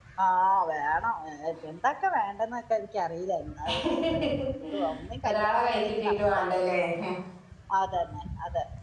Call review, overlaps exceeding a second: present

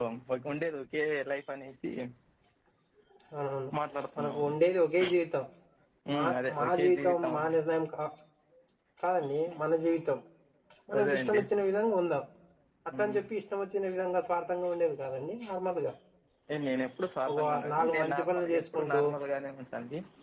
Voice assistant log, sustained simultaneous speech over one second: present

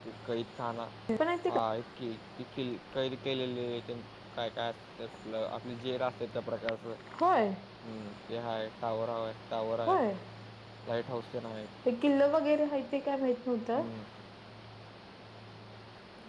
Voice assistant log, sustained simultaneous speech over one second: none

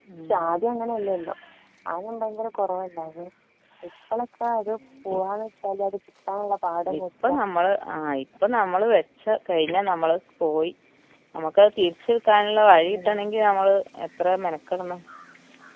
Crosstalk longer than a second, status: none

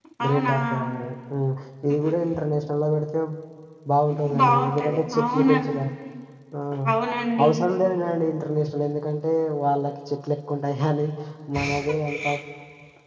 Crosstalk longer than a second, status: present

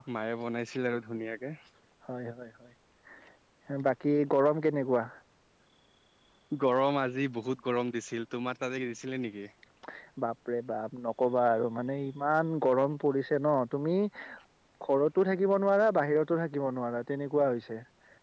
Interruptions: none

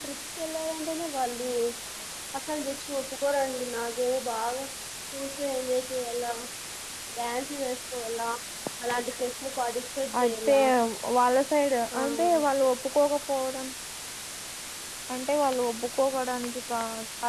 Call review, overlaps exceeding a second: none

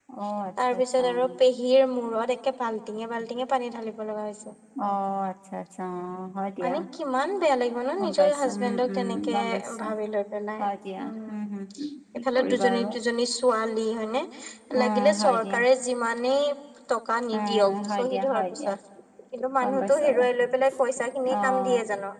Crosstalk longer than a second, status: present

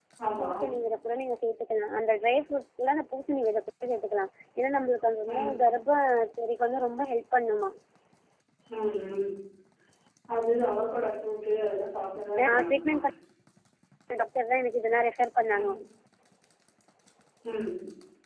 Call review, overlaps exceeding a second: none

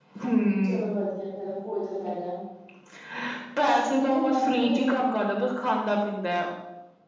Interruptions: present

